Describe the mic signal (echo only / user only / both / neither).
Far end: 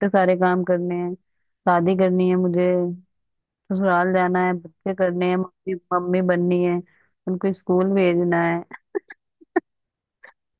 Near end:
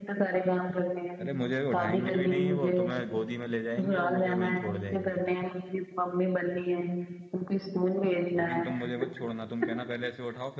both